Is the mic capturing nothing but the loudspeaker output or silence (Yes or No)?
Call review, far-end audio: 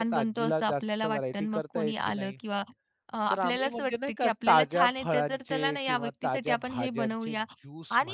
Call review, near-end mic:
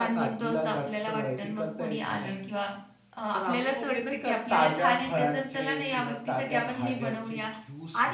Yes